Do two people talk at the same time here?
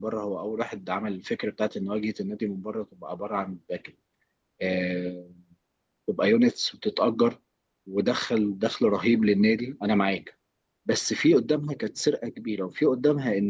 No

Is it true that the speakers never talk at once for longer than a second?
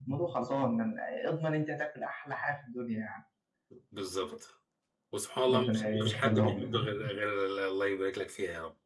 No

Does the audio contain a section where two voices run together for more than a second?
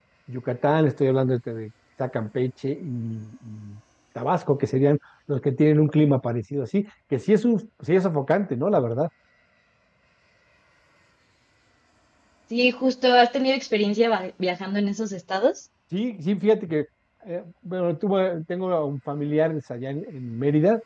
No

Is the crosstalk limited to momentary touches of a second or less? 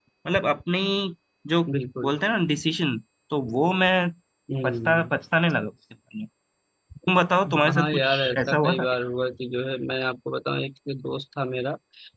No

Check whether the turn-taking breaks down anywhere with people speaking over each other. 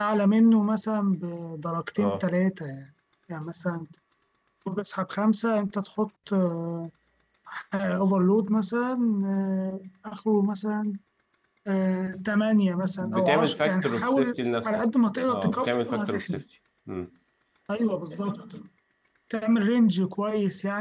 Yes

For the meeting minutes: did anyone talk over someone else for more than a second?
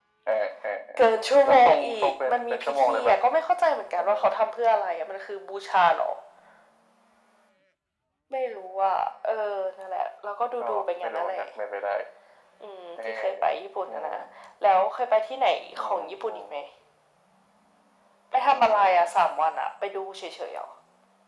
Yes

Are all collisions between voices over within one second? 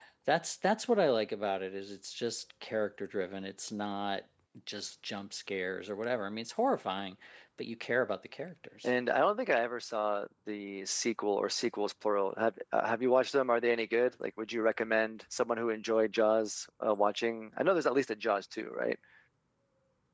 Yes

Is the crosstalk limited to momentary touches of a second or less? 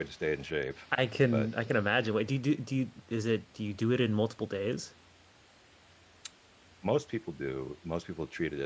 Yes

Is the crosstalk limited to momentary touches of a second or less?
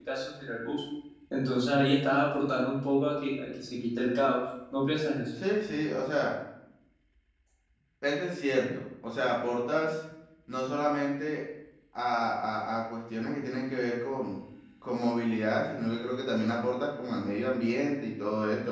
Yes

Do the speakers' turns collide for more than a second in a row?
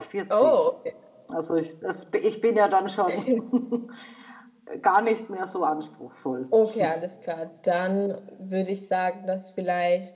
No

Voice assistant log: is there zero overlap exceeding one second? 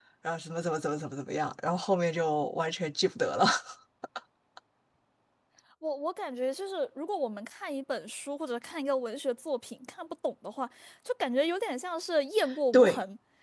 Yes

